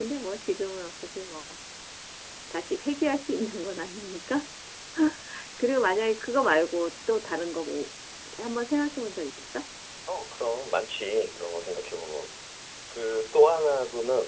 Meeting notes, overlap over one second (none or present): none